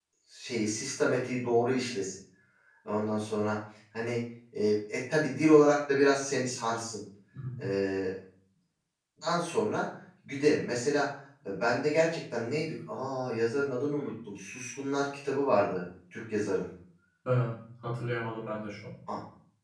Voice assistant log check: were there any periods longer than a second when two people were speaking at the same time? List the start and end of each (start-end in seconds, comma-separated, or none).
none